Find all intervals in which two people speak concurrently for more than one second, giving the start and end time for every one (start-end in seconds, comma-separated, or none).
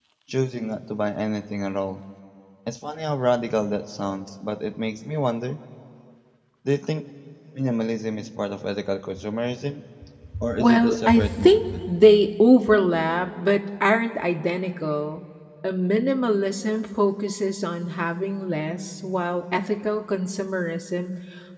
10.6-11.8